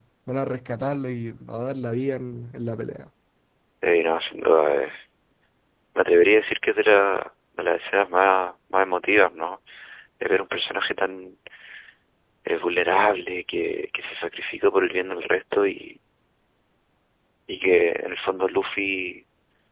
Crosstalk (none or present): none